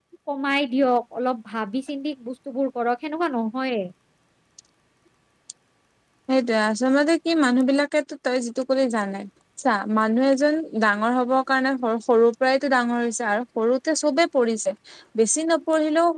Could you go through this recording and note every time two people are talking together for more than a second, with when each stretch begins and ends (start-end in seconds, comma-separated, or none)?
none